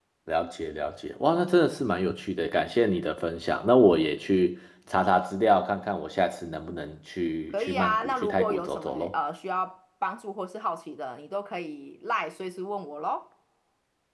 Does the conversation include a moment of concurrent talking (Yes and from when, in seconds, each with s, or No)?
Yes, from 7.5 s